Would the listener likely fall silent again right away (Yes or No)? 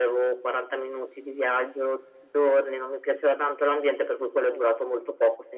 Yes